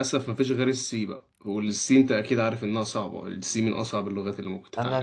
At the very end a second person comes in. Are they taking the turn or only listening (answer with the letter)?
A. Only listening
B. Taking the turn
B